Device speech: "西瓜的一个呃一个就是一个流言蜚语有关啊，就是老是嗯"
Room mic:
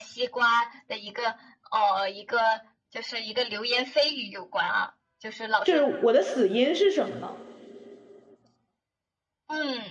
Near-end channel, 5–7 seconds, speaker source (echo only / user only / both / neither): both